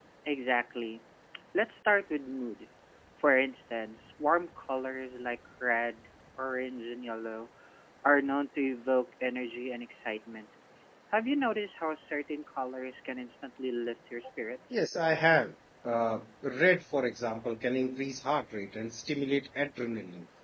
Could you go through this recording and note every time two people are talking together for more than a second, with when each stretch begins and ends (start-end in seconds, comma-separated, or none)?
none